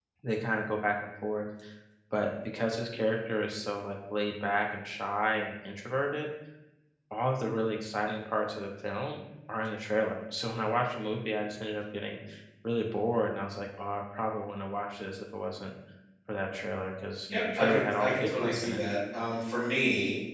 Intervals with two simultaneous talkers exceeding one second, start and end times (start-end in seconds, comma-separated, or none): 17.6-18.8